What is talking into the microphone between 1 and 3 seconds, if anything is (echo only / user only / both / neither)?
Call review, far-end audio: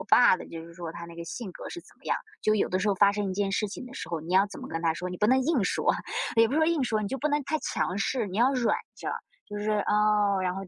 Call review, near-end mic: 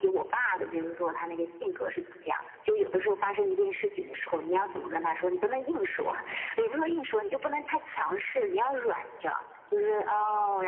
echo only